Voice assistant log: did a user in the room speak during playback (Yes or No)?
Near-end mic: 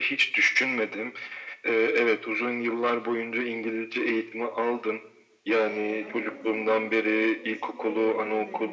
Yes